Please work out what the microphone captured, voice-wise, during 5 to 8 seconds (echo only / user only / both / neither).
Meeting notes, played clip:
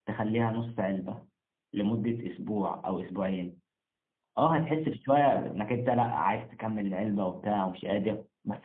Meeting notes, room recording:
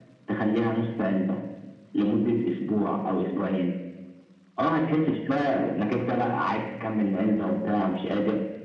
echo only